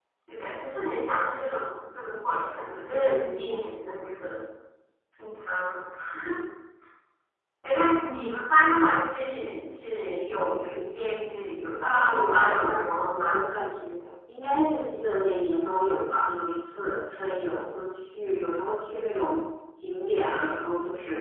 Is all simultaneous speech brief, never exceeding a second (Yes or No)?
No